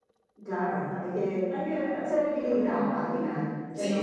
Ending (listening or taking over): taking over